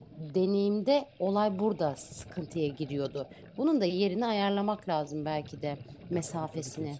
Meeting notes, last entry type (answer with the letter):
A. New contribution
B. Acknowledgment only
A